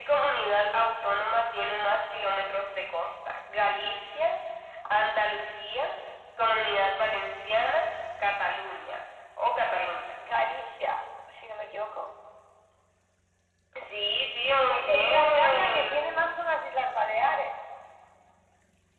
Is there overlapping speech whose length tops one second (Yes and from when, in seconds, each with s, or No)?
Yes, from 14.7 s